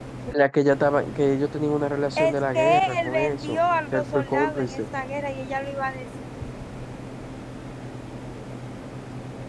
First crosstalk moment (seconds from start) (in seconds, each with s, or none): 2.2 s